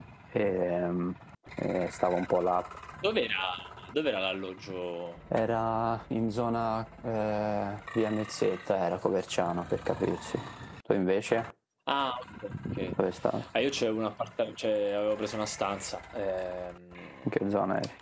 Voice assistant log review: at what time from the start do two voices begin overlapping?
none

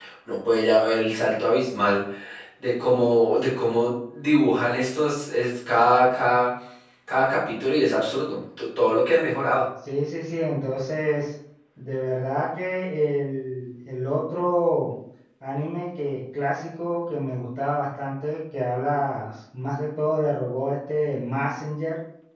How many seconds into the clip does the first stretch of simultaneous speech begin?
none

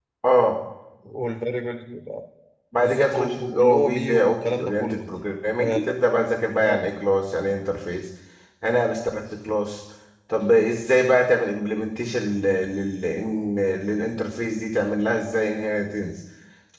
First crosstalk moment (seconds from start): 2.8 s

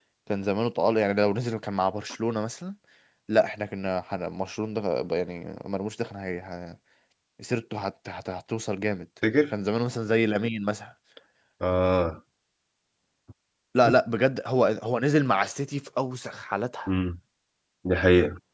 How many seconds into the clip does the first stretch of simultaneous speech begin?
none

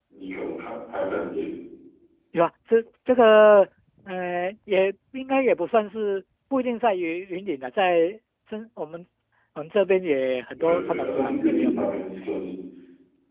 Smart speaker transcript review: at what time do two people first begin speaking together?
10.6 s

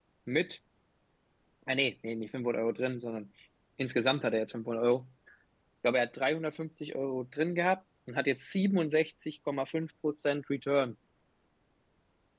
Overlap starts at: none

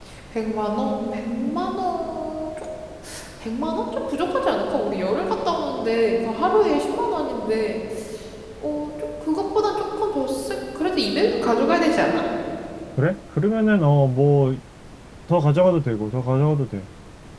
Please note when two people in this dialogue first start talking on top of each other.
none

